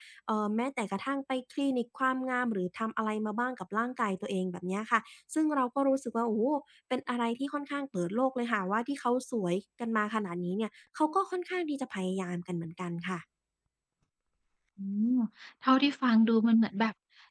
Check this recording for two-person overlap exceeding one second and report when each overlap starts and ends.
none

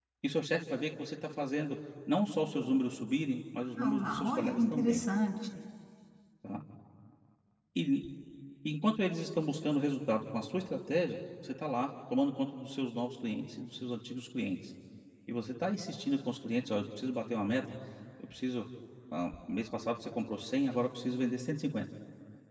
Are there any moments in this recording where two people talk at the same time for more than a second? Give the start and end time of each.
3.8-5.0

